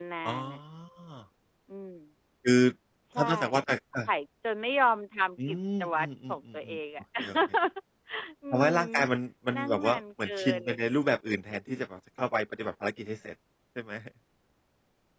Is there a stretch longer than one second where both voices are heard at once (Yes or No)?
Yes